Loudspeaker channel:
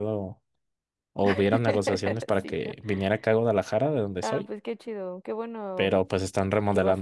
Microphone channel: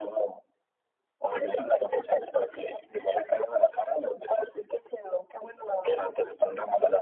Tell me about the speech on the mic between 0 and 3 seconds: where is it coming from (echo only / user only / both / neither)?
echo only